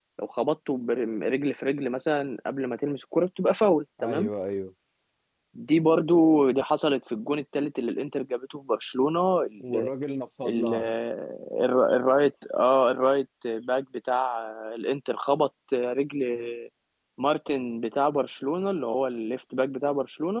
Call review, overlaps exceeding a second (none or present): none